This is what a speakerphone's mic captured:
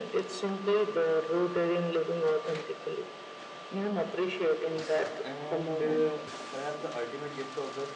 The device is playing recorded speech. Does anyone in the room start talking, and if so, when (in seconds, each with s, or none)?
5.2 s